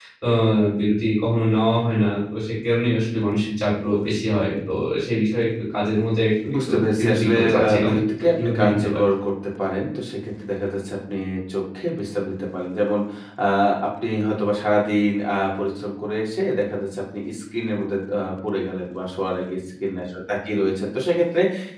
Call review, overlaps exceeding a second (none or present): present